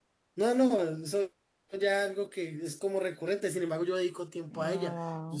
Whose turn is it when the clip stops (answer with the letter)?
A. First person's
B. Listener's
B